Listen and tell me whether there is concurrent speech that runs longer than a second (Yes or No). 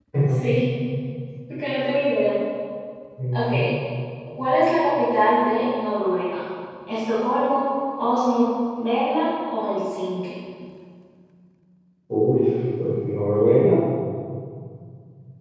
No